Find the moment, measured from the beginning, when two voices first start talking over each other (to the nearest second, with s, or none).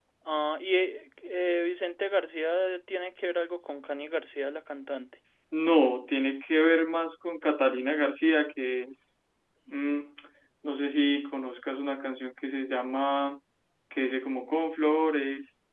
none